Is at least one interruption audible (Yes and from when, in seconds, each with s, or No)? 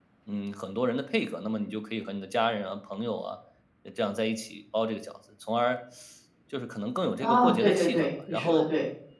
Yes, from 7.2 s